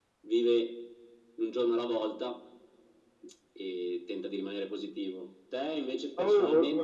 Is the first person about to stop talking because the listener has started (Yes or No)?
Yes